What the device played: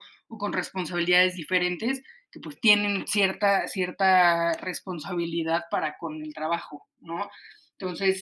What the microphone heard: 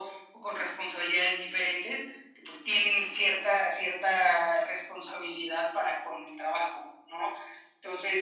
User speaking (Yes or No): No